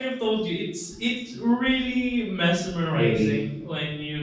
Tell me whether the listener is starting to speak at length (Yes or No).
No